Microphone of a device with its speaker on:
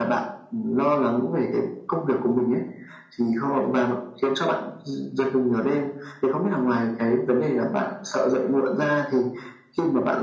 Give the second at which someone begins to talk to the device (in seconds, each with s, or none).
none